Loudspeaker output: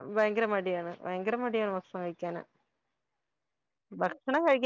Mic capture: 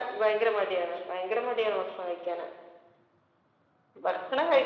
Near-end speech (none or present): none